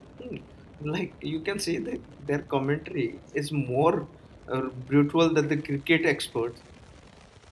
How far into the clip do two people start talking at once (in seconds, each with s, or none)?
none